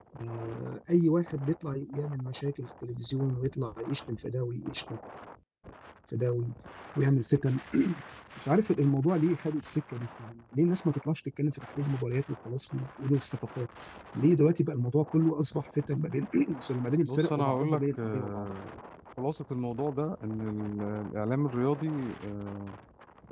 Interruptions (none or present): present